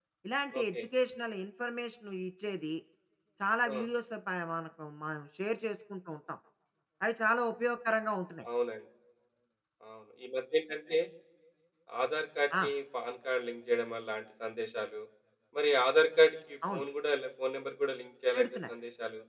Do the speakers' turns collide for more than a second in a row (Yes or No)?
No